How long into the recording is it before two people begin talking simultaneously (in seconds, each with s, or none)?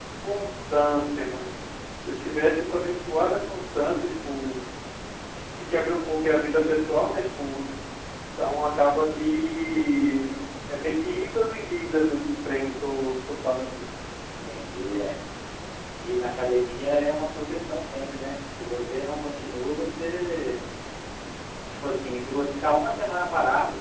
none